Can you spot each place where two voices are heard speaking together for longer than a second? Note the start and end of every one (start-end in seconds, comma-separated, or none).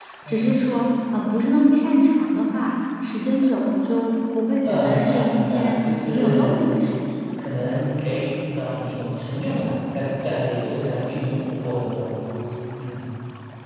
4.6-6.7